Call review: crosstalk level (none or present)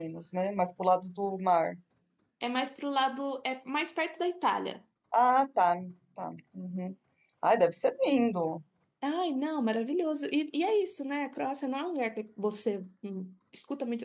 none